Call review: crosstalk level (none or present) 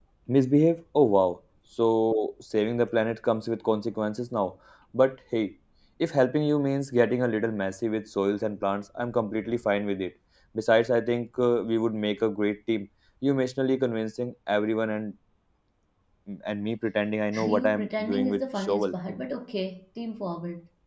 present